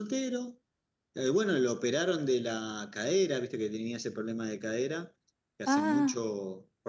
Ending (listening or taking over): listening